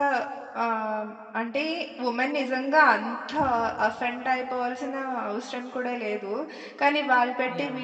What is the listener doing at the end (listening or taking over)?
listening